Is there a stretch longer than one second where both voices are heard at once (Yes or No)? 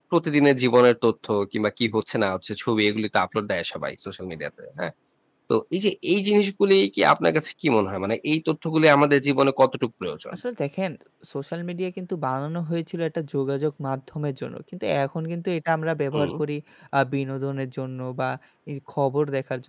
No